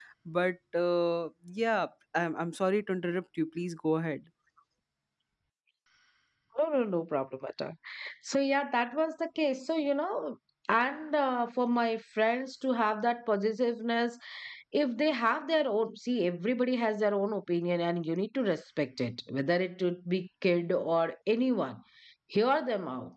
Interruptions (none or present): none